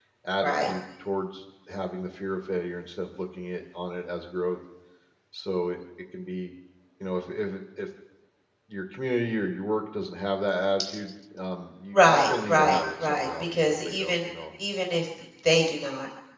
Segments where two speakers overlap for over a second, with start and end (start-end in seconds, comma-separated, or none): 11.9-14.3